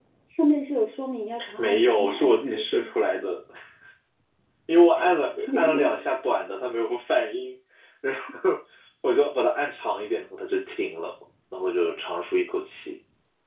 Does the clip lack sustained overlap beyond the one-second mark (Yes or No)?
No